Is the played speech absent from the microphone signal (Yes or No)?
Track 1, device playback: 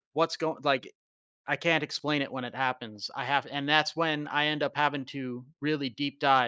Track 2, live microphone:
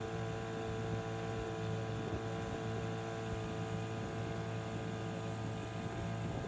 Yes